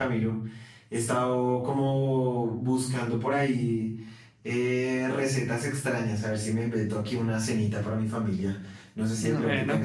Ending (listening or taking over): listening